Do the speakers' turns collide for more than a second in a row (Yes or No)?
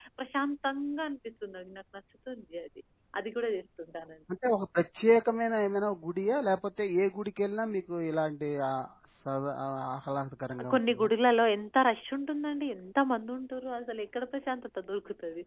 No